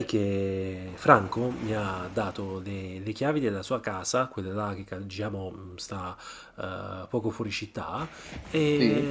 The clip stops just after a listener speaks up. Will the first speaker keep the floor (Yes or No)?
Yes